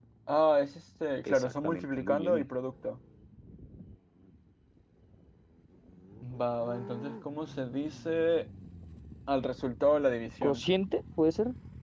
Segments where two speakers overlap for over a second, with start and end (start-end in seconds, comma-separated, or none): 1.3-2.5